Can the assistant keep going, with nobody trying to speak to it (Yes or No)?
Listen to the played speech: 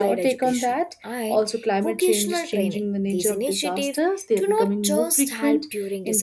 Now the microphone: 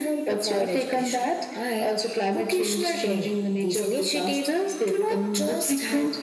Yes